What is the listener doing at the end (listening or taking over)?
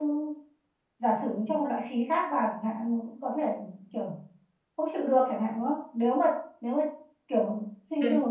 listening